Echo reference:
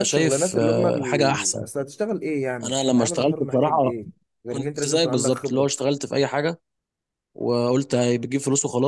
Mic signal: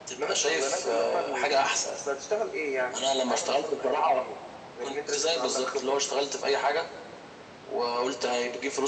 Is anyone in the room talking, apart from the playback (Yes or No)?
No